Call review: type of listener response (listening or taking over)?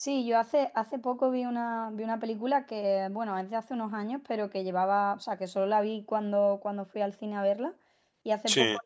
listening